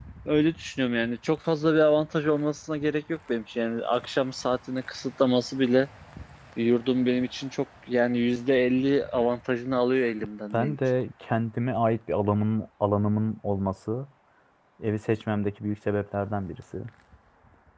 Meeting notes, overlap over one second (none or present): none